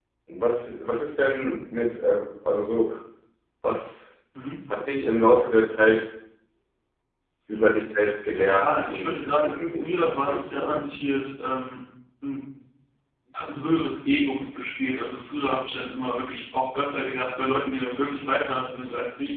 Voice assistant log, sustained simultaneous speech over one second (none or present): present